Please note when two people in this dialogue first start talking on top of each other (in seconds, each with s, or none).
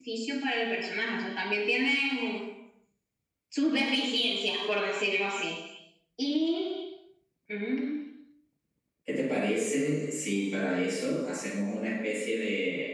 none